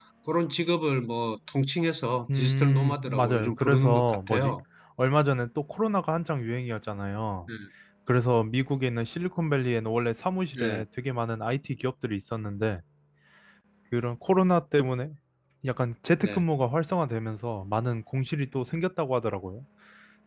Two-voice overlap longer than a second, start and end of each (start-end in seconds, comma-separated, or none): 2.4-4.5